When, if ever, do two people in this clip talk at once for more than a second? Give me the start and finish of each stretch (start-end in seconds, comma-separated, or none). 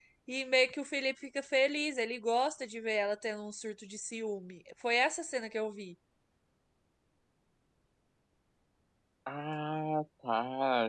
none